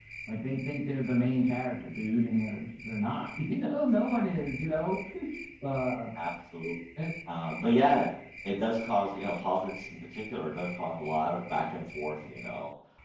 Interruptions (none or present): none